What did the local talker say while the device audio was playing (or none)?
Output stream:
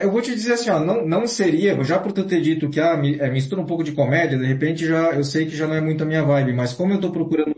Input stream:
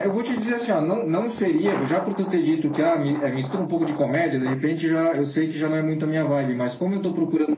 none